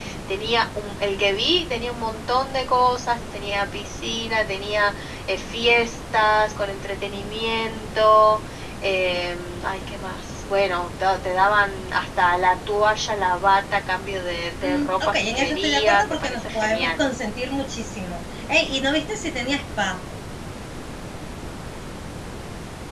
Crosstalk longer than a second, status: present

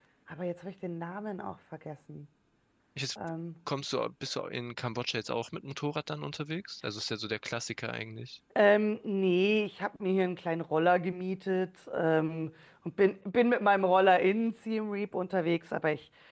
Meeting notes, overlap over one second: none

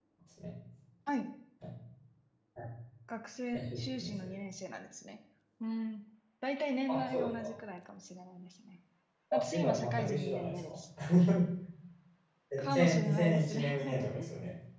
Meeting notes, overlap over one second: present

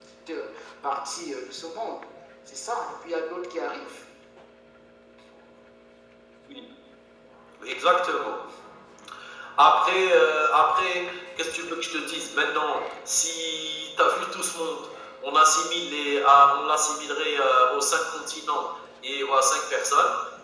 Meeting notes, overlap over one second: none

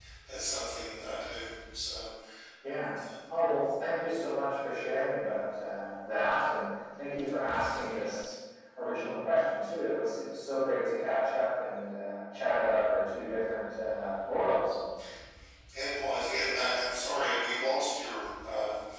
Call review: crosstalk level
none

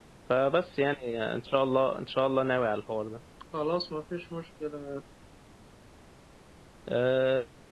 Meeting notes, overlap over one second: none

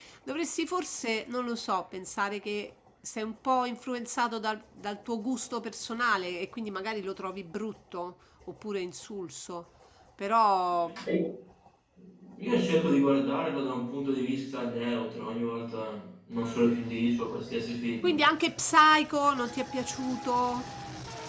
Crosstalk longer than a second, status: none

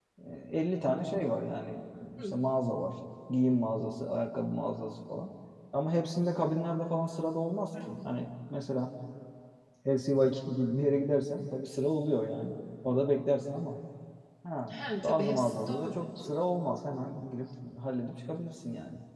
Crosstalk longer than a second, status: present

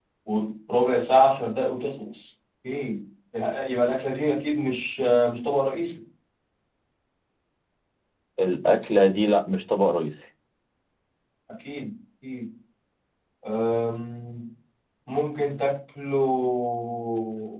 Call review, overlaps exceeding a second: none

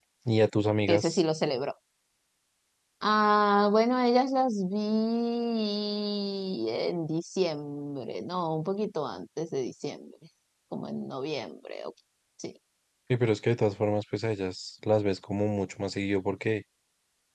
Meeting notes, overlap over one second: none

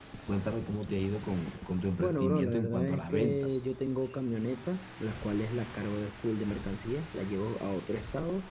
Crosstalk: present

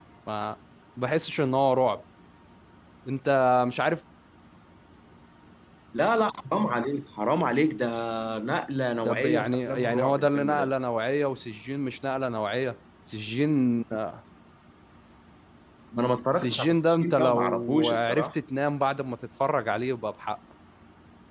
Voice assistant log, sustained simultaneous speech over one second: present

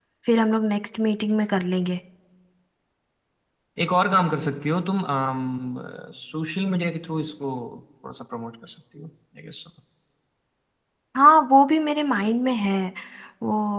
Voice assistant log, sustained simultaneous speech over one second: none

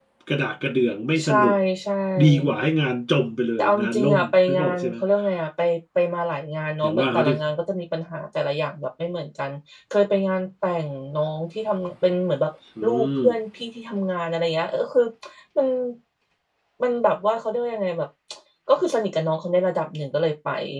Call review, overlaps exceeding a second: present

